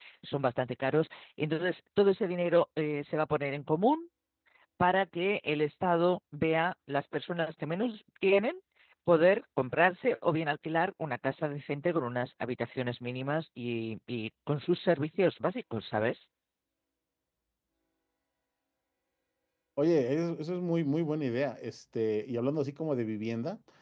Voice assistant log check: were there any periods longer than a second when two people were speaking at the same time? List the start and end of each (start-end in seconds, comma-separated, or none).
none